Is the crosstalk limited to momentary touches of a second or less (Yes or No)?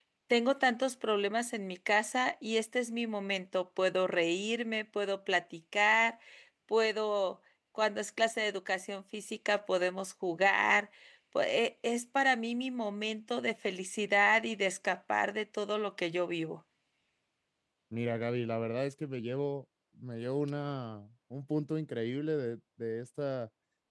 Yes